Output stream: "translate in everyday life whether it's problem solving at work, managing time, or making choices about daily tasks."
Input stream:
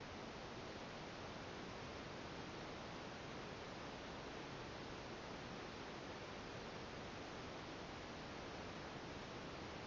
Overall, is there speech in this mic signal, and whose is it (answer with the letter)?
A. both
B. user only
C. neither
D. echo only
C